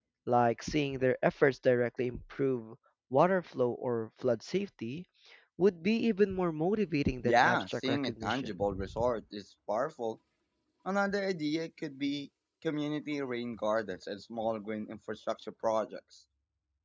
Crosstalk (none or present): present